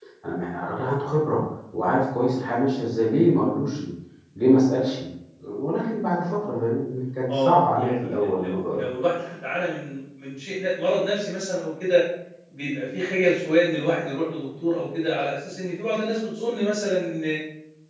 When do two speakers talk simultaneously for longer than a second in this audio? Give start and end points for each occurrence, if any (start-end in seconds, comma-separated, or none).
7.3-8.9